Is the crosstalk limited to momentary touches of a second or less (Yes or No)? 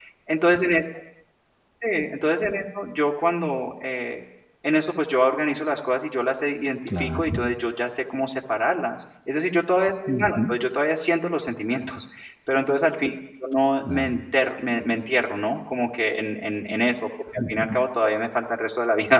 Yes